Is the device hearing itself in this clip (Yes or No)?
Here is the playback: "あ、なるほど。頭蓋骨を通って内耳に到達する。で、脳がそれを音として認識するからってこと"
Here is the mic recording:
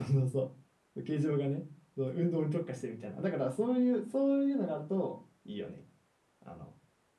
No